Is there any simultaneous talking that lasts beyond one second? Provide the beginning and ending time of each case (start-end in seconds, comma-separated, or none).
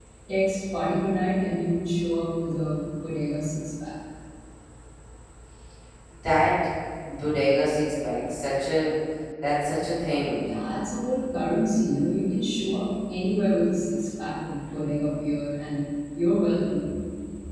none